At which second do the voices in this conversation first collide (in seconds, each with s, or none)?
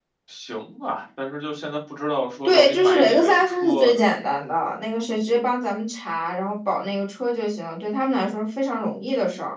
2.4 s